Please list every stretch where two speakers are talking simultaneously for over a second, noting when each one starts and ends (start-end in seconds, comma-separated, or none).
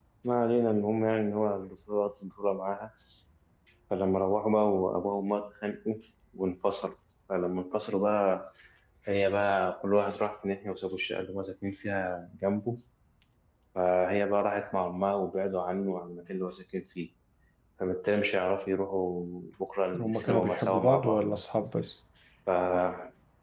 20.0-21.2